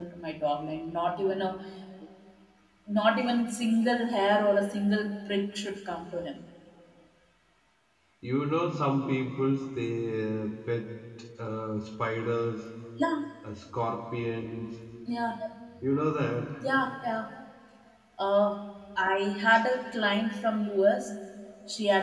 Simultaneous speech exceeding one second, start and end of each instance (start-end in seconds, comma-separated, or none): none